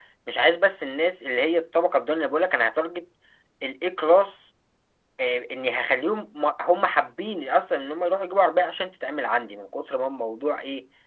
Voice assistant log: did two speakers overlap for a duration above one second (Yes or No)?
No